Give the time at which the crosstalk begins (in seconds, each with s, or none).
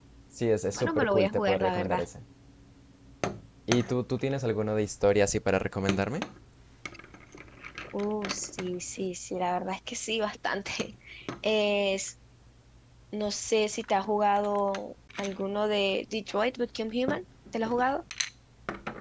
0.8 s